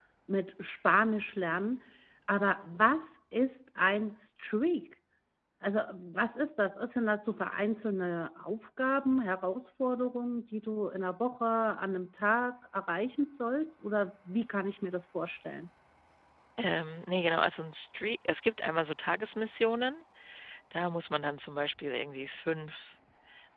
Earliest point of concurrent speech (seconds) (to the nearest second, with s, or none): none